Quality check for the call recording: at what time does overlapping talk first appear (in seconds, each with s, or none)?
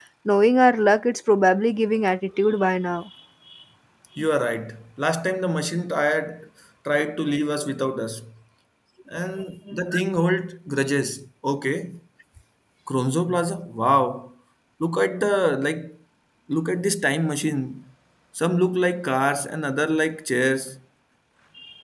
none